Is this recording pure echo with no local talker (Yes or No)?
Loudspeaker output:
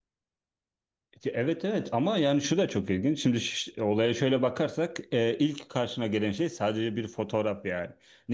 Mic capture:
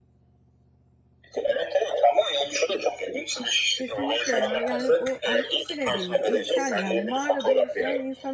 No